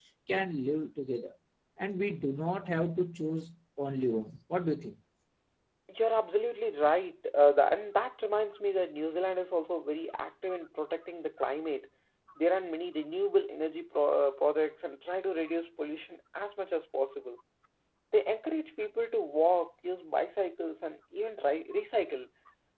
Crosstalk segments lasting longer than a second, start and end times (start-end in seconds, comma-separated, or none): none